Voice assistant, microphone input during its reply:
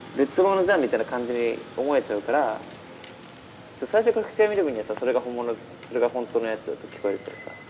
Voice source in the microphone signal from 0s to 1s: echo only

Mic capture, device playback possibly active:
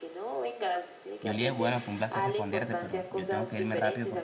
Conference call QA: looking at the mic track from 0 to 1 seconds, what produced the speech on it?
echo only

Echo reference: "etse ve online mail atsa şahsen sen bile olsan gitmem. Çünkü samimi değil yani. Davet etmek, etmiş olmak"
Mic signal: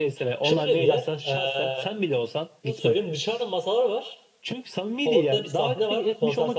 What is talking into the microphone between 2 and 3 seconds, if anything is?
both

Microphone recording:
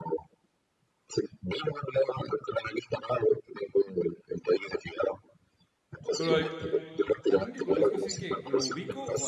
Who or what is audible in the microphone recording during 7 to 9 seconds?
both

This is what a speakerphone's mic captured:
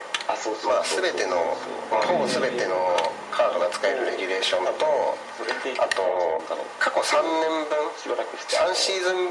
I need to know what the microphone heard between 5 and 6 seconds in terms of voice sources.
echo only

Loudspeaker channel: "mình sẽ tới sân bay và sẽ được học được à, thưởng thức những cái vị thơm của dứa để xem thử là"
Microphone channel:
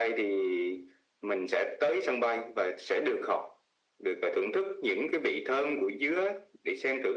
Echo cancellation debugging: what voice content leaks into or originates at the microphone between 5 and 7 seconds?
echo only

